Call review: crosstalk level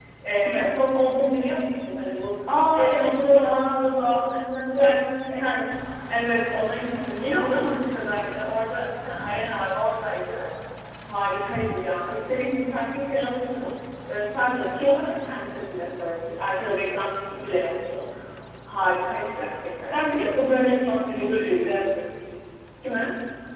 present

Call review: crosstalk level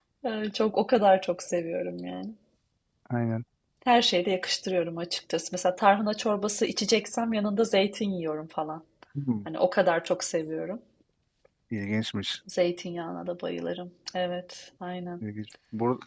none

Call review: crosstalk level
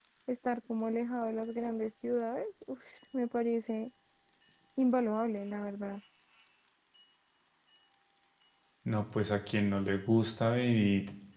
none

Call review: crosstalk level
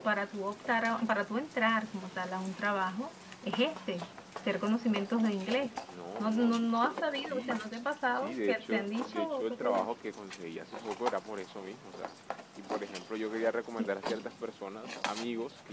present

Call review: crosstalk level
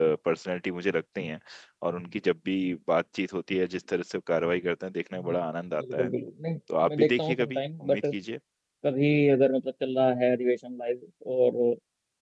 present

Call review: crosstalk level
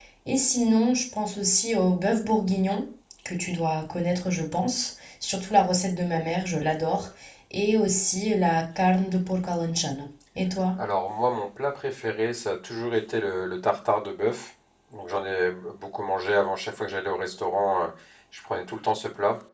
none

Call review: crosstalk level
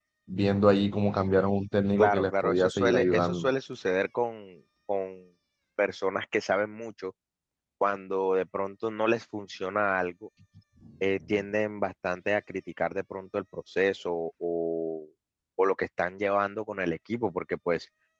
present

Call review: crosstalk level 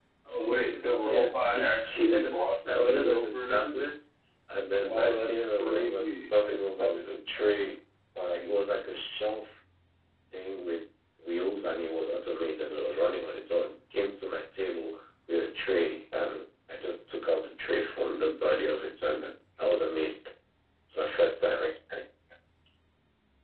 present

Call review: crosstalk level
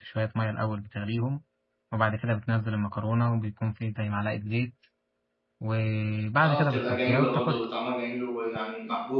present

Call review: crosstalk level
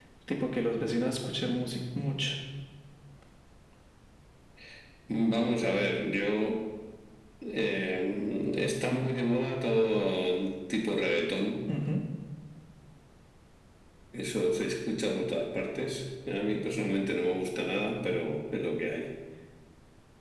none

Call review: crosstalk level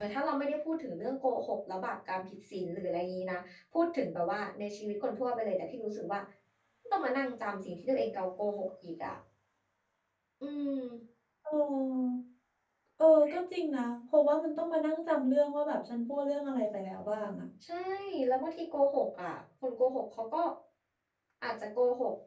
none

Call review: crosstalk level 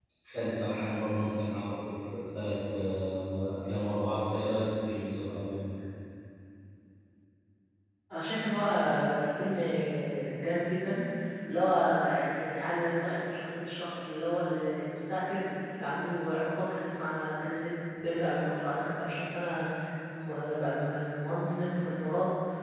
none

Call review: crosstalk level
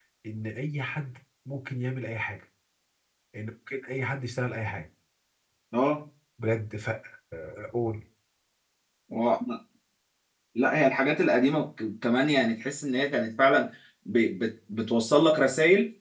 none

